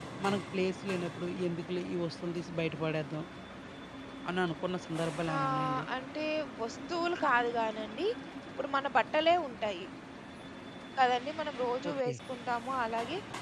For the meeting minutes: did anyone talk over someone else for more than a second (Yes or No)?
No